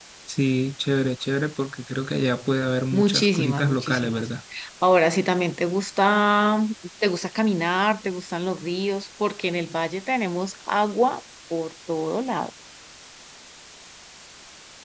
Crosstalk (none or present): present